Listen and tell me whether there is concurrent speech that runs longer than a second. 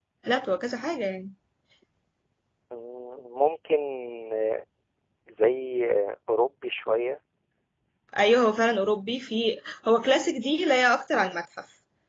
No

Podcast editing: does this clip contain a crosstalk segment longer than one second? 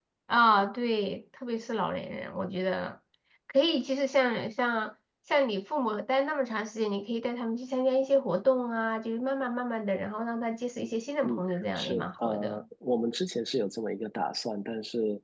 Yes, from 11.2 s

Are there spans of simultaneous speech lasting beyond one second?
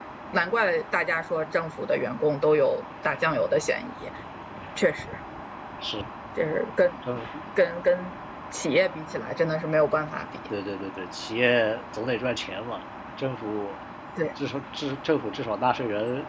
No

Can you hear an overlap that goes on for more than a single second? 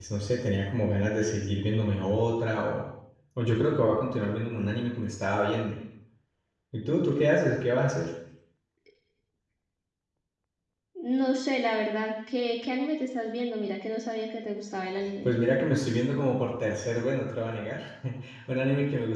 No

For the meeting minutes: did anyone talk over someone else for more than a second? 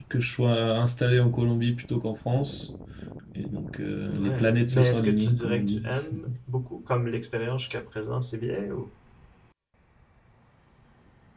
Yes, from 4.1 s

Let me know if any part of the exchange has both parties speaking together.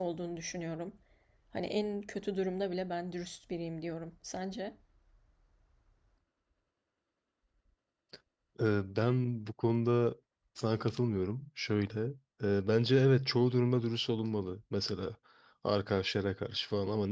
No

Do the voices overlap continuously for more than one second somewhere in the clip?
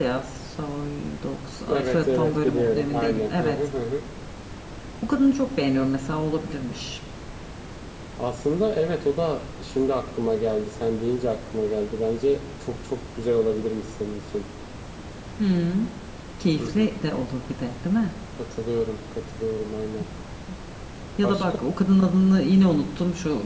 Yes, from 1.7 s

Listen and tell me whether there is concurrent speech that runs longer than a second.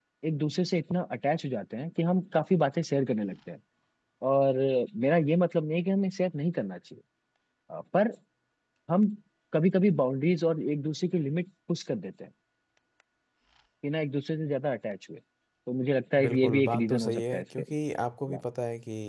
Yes, from 16.2 s

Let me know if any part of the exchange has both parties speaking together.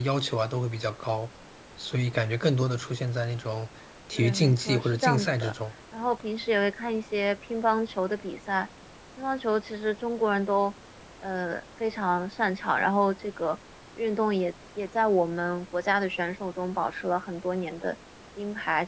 Yes, from 4.2 s

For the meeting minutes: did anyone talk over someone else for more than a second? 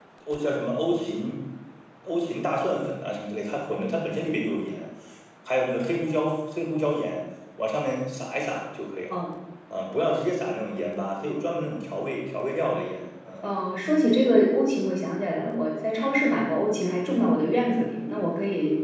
No

